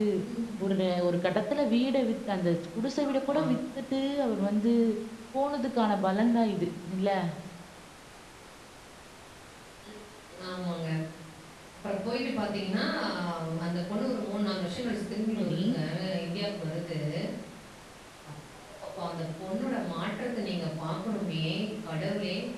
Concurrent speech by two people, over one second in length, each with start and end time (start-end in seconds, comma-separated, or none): none